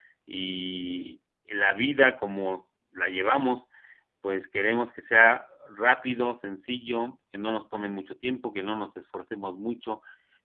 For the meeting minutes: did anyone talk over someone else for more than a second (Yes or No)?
No